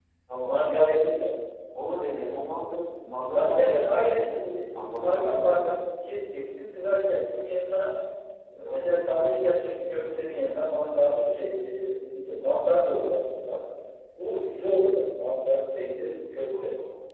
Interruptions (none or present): present